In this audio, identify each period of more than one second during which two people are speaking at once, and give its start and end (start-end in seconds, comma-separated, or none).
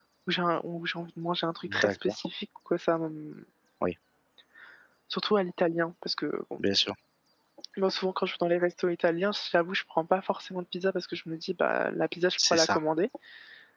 none